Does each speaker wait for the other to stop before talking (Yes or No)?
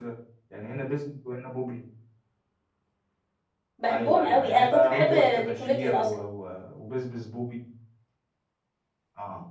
No